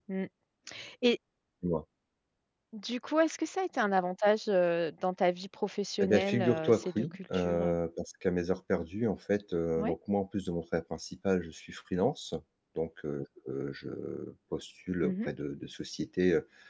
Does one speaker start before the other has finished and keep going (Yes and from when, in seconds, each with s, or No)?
Yes, from 6.0 s